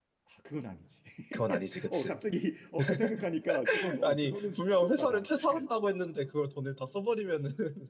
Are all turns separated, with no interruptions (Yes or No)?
No